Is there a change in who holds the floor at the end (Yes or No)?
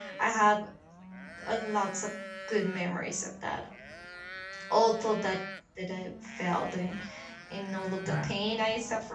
No